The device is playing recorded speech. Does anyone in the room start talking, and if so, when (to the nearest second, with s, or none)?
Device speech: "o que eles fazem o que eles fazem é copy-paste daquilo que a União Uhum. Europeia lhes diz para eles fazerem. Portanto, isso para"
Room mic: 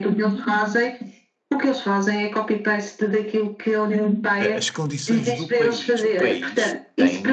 4 s